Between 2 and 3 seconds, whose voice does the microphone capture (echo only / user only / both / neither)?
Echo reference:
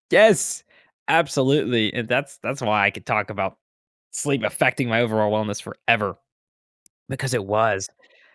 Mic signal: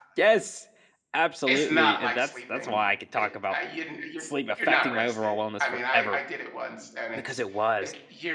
both